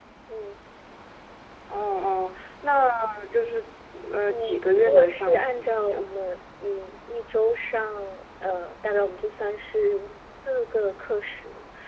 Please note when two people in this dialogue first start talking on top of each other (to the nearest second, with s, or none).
4 s